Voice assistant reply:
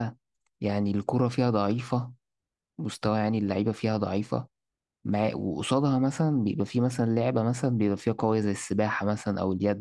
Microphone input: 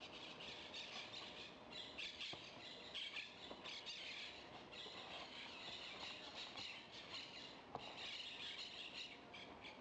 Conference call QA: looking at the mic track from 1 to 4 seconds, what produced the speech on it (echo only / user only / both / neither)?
neither